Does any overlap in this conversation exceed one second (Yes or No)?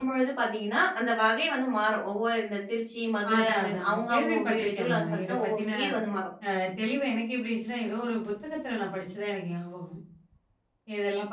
Yes